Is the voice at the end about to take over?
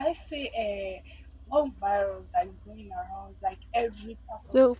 No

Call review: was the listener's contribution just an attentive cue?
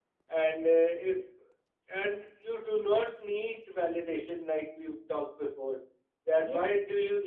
Yes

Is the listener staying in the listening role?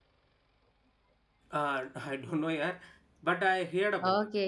No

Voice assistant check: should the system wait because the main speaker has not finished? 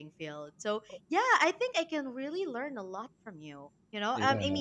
Yes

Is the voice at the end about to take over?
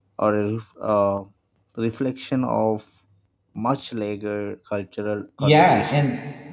Yes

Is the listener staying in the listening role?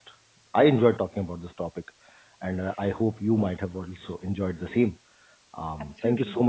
Yes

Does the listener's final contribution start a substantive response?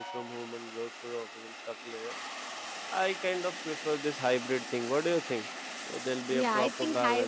Yes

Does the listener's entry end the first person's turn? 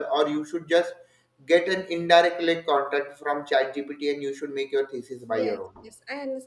Yes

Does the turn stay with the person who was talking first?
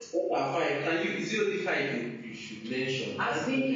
No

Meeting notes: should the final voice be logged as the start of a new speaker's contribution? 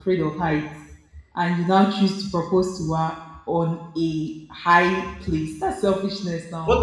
Yes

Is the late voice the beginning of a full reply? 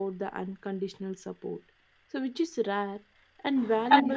No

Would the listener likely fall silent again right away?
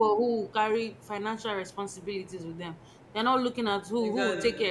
Yes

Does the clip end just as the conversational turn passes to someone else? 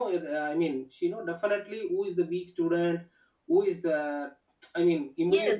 Yes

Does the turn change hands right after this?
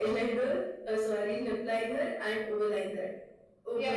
Yes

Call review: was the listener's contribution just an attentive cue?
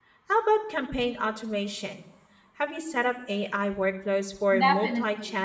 No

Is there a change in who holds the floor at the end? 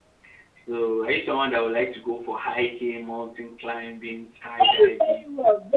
Yes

